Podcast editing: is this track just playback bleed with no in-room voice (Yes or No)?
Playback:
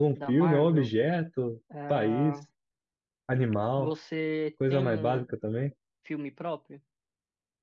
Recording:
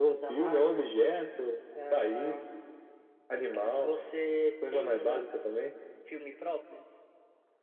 Yes